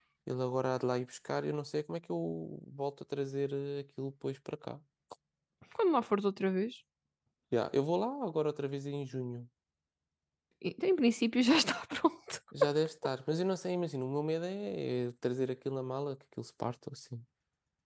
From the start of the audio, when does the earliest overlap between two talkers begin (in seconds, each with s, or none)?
none